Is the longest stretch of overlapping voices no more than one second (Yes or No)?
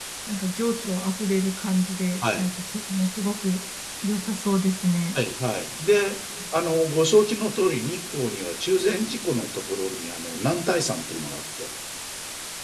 Yes